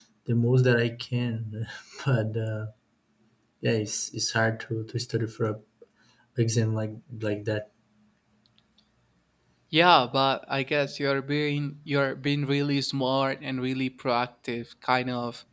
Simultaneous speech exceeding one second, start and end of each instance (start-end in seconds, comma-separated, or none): none